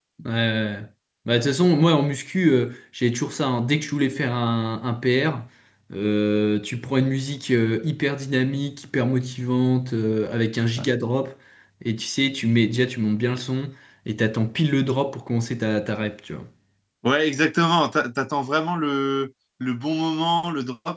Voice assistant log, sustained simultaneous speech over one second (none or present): none